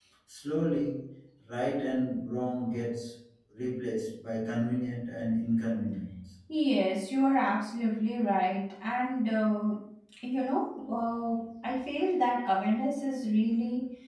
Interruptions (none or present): none